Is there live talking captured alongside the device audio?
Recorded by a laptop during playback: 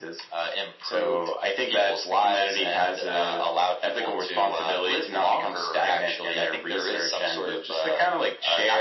No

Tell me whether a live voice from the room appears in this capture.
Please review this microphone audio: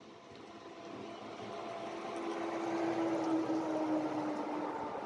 No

